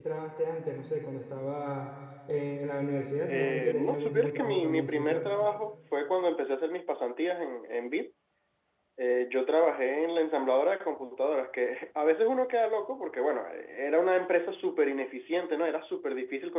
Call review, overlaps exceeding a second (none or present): present